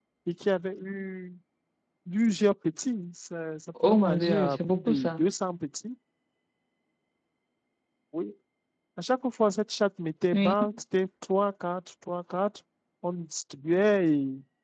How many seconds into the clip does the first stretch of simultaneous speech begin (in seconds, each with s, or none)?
3.8 s